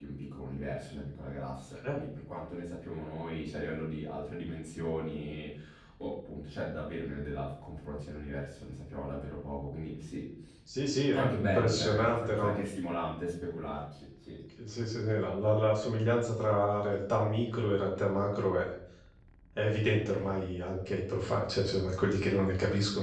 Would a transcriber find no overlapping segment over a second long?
No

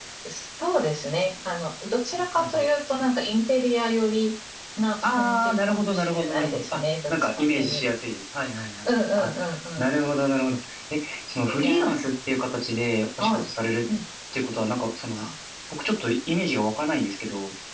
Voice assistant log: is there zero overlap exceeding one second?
No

